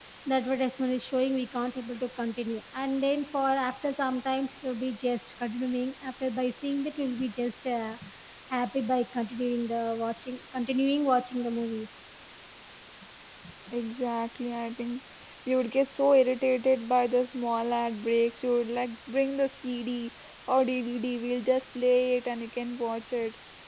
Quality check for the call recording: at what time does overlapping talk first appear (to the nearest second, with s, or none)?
none